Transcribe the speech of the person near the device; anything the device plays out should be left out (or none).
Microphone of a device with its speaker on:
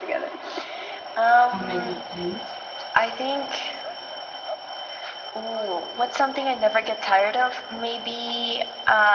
and make it cute.